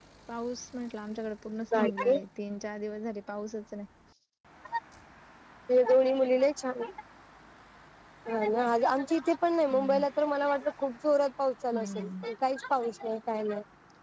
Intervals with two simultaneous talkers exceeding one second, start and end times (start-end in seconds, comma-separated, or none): none